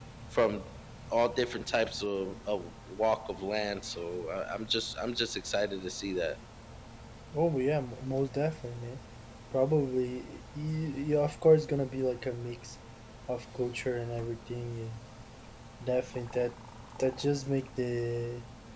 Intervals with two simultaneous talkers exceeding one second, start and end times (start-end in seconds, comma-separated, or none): none